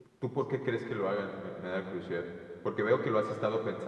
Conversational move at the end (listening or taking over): listening